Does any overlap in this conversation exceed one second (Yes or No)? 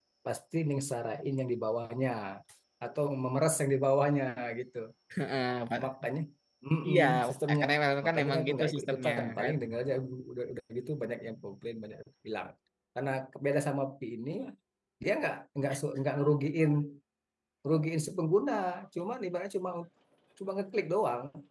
Yes